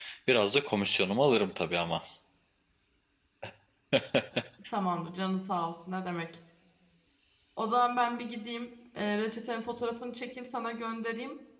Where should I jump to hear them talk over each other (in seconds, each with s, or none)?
none